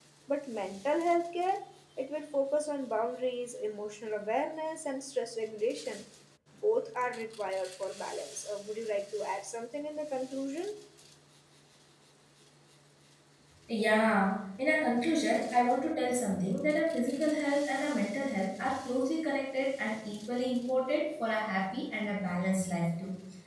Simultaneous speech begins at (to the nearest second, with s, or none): none